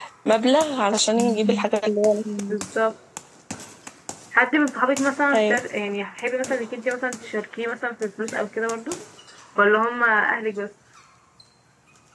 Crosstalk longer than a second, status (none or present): none